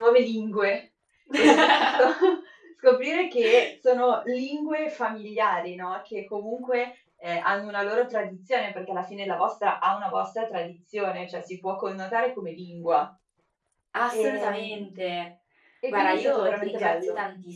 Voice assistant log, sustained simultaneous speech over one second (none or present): present